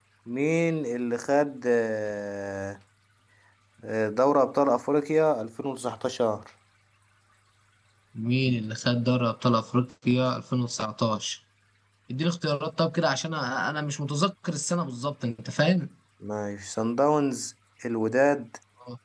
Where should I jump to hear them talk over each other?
none

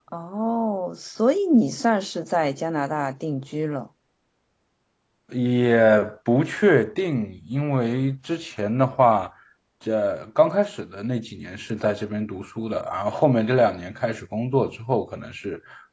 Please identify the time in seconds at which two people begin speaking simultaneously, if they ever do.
none

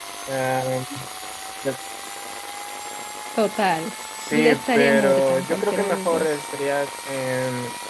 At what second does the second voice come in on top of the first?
4.2 s

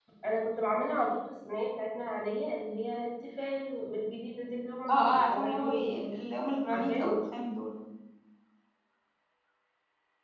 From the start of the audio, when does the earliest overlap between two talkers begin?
4.9 s

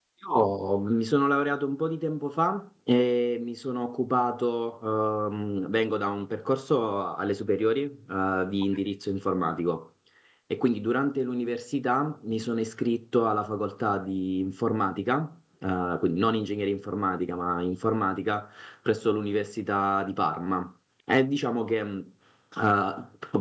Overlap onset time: none

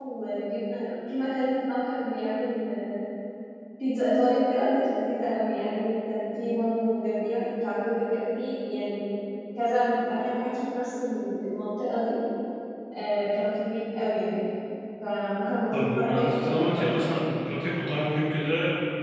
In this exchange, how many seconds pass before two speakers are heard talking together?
15.7 s

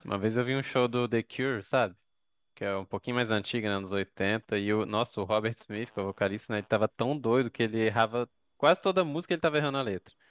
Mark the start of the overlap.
none

